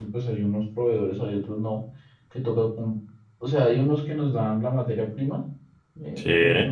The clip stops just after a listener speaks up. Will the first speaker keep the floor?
Yes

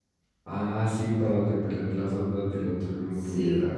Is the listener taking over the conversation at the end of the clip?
Yes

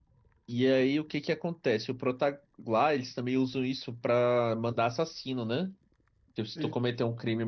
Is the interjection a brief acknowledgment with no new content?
Yes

